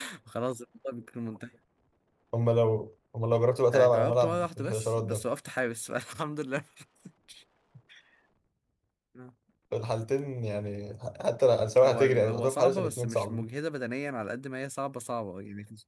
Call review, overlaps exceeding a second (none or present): present